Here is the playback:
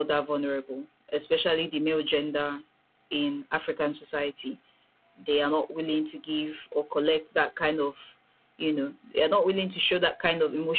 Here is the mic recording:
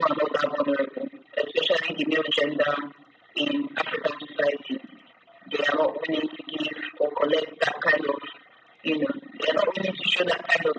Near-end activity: none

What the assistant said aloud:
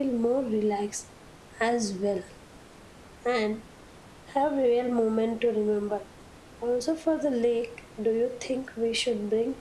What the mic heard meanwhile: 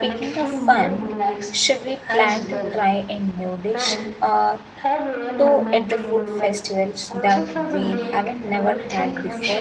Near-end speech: present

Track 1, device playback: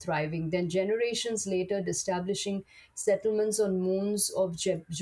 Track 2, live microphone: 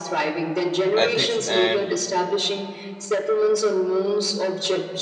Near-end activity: present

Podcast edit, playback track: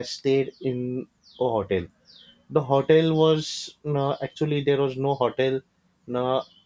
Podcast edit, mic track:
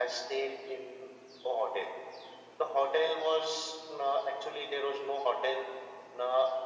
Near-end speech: none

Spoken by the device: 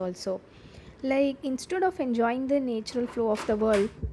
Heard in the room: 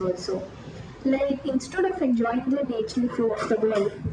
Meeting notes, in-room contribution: none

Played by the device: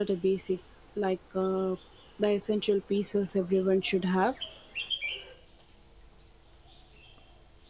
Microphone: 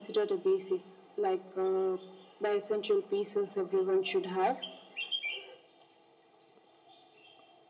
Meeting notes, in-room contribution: none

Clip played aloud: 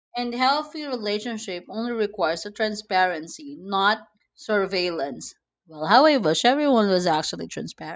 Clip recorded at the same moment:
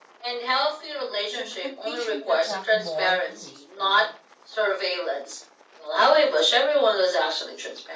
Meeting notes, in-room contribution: present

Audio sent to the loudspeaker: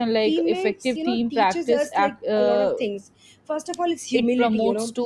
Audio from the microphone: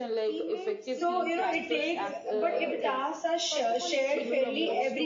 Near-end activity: present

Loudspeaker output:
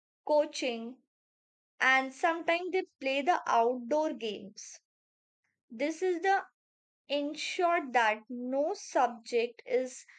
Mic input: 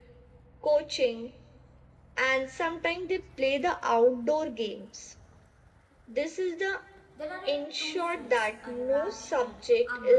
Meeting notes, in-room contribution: present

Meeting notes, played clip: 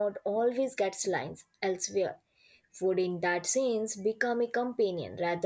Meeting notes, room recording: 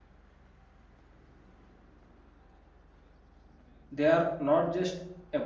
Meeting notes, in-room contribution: present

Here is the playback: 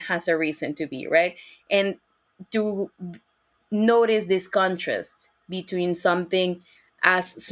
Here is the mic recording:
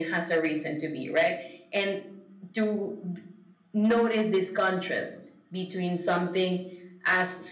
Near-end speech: none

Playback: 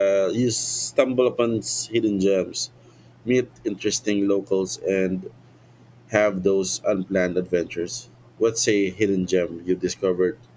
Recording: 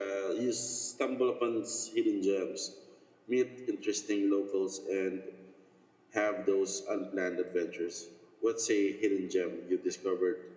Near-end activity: none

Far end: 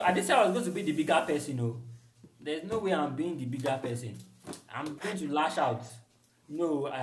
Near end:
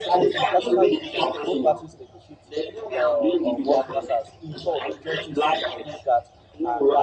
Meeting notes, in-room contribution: present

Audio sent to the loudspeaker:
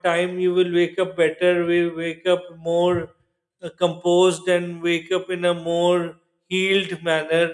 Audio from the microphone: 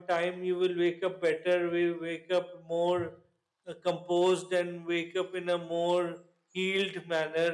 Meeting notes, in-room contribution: none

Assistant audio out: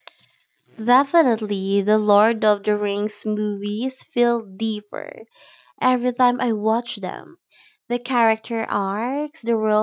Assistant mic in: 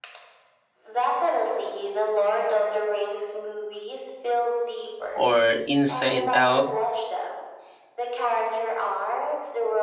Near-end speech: present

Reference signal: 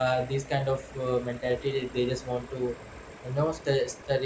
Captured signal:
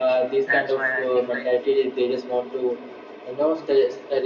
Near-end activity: present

